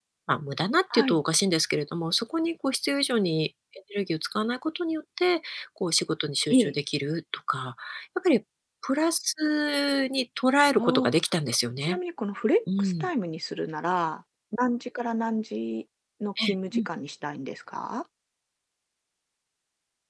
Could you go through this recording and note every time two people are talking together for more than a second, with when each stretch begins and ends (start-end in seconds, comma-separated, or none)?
none